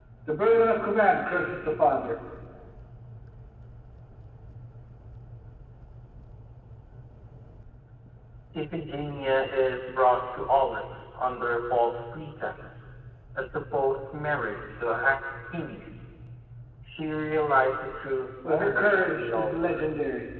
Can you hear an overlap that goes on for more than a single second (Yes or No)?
Yes